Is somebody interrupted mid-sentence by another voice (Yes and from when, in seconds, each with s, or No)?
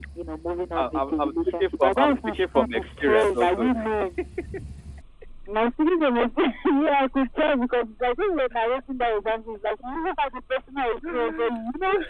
Yes, from 0.8 s